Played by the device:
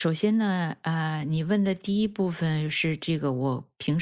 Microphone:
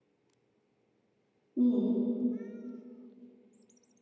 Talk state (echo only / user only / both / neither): user only